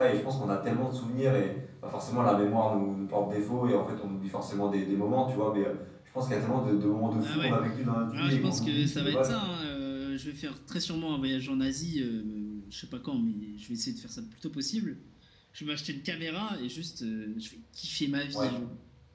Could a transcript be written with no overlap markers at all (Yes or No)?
No